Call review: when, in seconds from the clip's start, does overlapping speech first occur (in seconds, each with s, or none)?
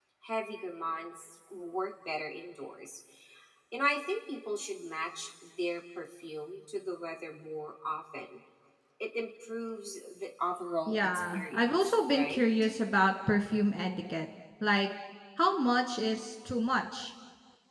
10.9 s